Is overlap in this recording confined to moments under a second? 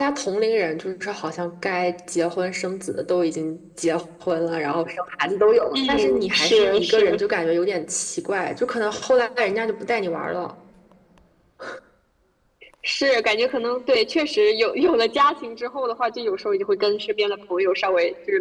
No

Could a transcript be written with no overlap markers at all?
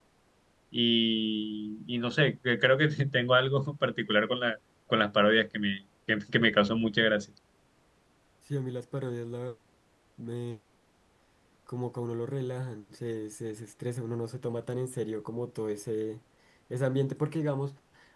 Yes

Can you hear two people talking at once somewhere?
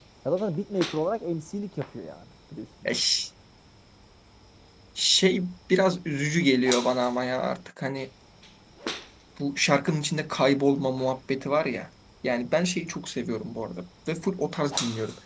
No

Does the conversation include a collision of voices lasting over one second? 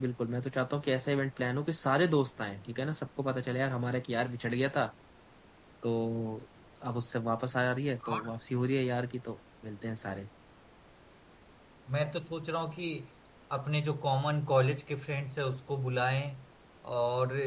No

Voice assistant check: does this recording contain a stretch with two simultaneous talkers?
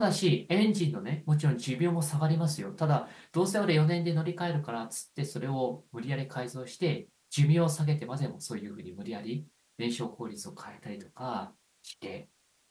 No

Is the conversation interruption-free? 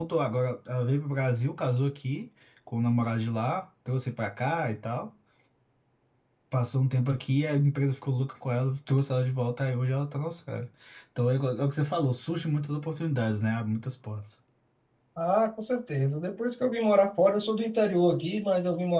Yes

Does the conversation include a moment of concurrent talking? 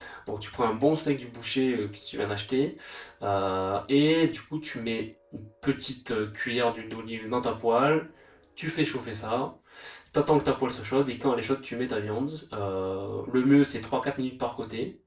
No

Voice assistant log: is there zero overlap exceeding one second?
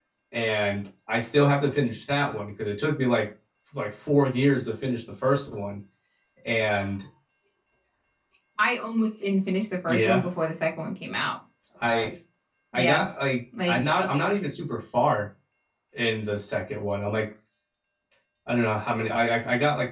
Yes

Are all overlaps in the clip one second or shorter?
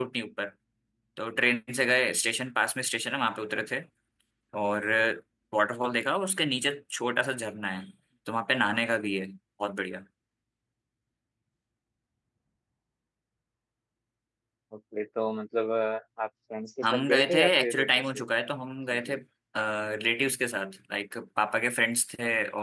No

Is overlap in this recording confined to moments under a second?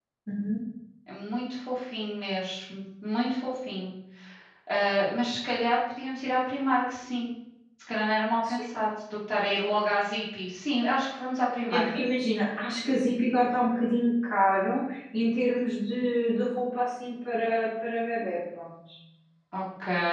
Yes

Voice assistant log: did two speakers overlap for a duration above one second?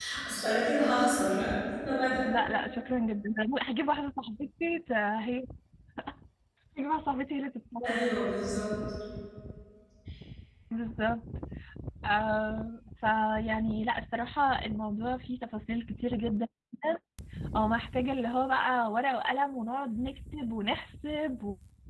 No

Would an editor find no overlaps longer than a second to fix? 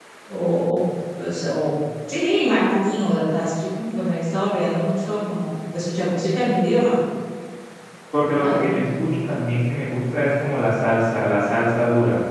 Yes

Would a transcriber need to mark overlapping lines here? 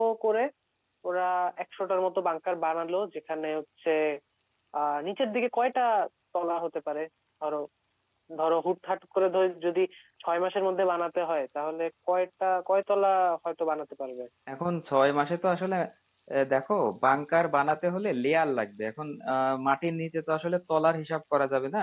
No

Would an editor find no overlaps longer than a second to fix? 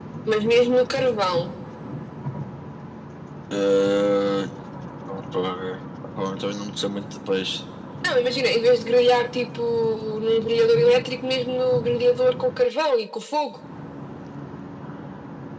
Yes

